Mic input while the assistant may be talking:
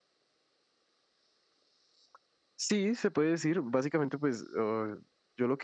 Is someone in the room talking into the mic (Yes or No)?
Yes